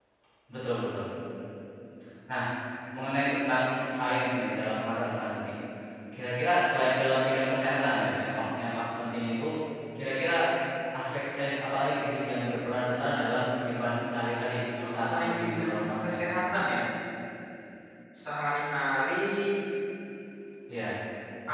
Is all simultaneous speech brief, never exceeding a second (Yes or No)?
No